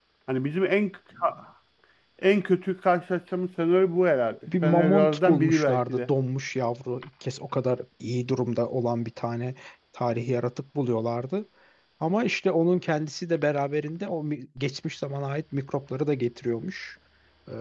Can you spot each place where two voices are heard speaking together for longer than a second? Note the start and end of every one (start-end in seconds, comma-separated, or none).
4.6-6.1